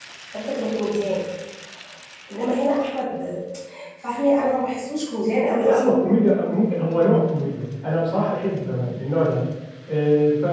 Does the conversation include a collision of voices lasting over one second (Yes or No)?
No